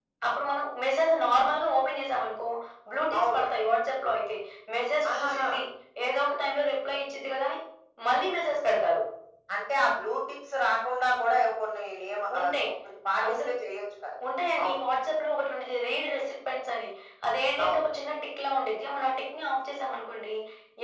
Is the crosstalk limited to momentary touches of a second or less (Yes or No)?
Yes